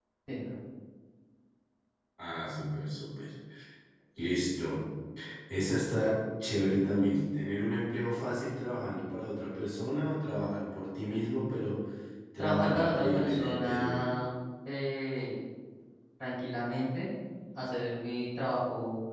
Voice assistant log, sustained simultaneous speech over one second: present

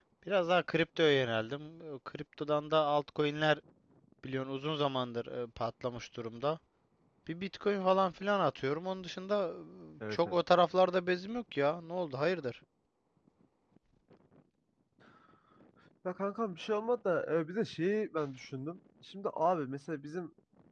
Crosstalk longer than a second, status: none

